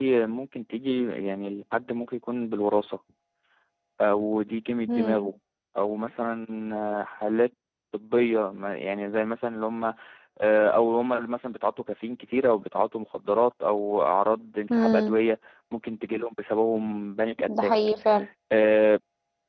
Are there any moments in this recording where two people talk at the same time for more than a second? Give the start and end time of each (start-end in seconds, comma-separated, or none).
none